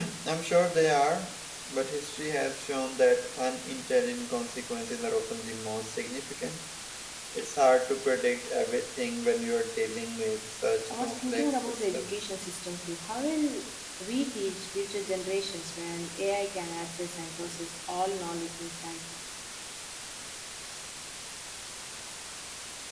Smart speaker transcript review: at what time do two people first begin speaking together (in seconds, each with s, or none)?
10.9 s